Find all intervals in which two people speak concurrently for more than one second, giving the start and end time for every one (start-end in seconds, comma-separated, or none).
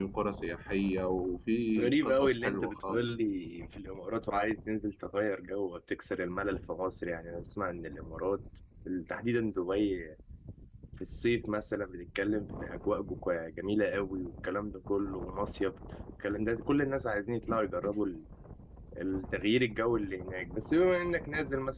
1.8-3.1